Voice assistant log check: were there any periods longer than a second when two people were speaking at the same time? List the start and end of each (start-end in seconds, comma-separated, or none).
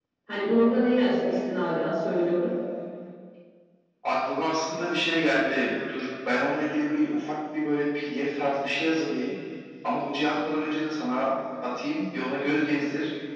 none